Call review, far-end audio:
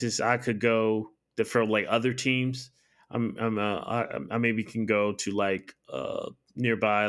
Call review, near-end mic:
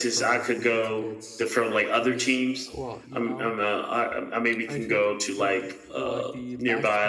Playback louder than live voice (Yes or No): Yes